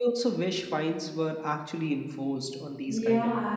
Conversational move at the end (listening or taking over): taking over